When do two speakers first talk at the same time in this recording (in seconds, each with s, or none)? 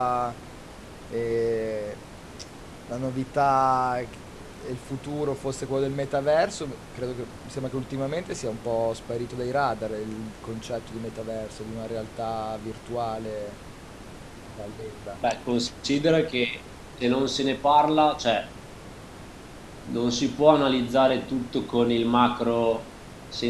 none